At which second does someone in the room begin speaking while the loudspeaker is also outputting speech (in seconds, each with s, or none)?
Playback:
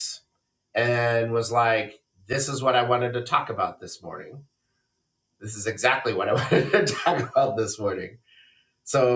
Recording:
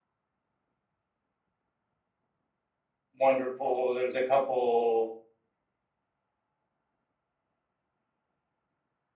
3.2 s